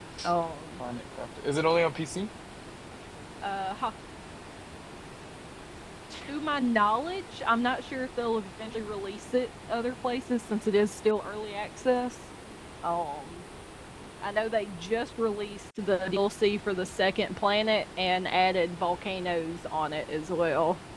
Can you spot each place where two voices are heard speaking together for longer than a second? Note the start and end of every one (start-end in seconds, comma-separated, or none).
none